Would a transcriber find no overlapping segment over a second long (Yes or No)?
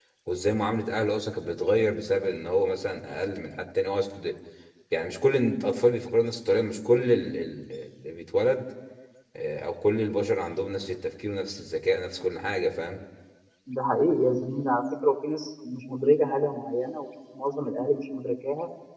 Yes